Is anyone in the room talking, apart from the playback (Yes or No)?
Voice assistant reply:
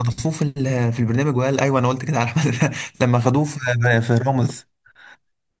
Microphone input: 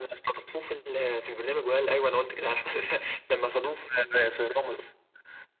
No